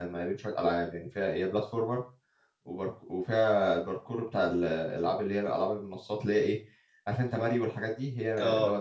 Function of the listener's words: listening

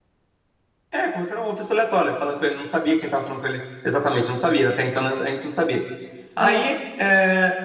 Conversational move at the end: listening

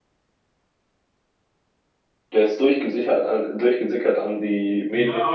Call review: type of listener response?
taking over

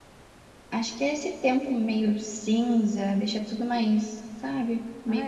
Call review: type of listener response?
taking over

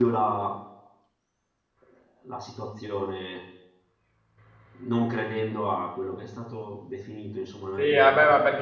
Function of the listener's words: taking over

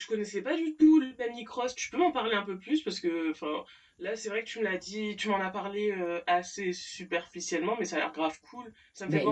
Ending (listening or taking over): taking over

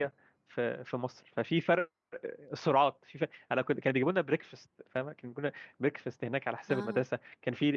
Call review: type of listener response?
listening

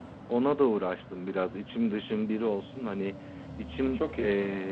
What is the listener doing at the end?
listening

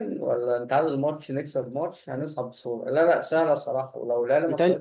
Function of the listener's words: listening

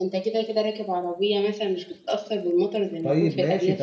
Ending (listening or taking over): taking over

